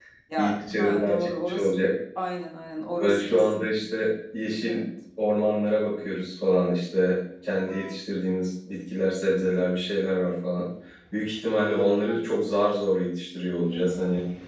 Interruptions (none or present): present